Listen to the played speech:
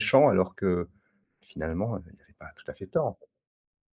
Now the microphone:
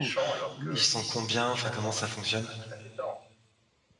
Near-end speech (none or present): present